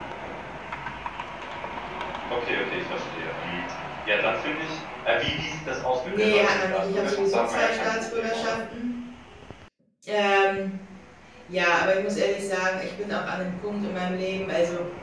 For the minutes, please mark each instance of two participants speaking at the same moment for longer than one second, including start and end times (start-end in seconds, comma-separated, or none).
6.2-8.6